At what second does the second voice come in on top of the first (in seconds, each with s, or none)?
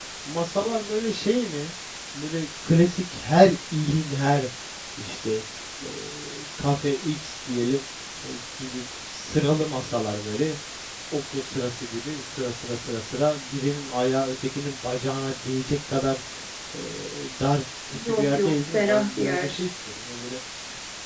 17.9 s